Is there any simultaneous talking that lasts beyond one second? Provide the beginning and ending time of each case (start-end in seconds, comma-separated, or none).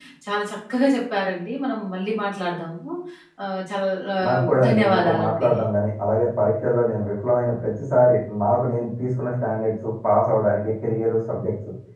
4.3-5.5